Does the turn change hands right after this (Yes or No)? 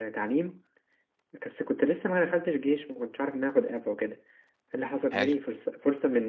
No